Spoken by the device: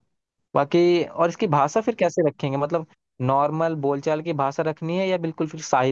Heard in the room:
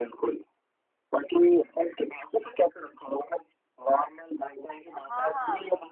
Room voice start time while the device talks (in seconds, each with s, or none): 4.9 s